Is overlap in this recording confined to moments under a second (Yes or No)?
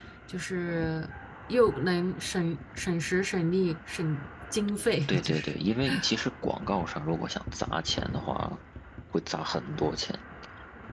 Yes